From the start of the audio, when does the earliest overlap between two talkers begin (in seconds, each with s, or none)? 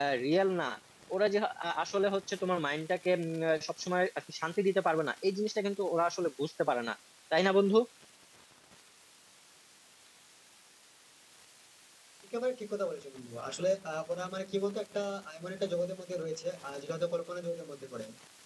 none